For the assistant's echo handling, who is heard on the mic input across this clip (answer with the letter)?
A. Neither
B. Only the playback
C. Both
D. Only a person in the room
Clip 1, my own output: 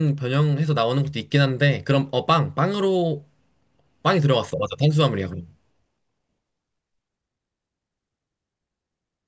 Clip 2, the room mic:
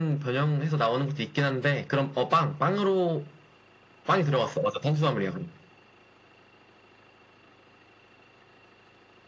B